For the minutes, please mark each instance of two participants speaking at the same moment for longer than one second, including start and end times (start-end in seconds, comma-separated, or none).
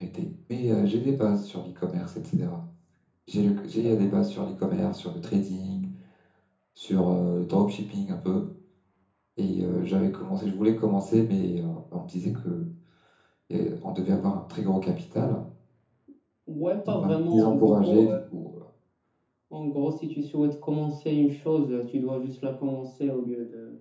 16.9-18.2